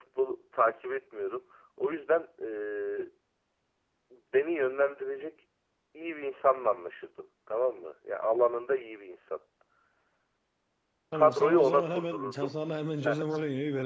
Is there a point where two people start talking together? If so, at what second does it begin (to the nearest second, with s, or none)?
11 s